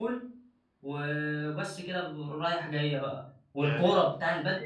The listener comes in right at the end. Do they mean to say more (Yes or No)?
No